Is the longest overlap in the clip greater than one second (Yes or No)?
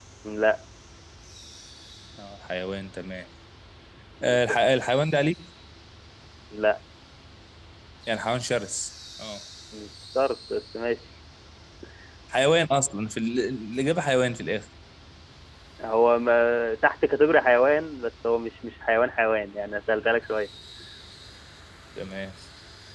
No